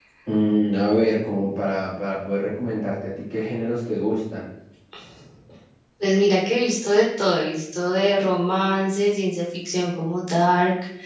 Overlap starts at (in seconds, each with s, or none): none